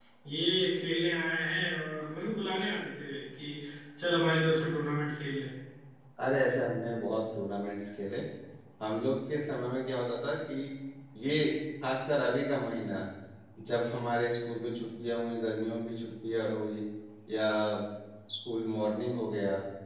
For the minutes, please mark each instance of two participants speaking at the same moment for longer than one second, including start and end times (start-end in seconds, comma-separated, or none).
none